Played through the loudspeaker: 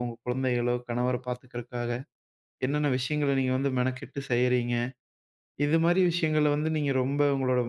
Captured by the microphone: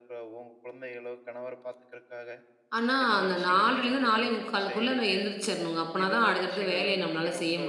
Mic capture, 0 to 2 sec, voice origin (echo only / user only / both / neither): echo only